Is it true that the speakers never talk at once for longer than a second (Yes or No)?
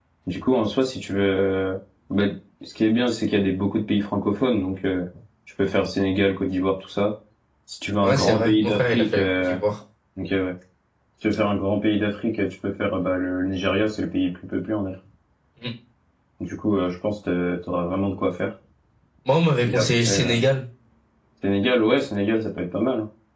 No